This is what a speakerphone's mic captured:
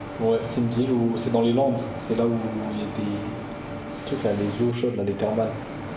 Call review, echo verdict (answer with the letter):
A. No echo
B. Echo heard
A